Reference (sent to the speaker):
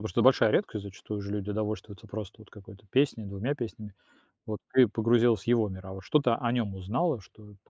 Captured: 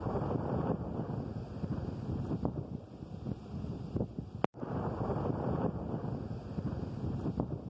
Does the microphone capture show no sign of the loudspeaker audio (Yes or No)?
Yes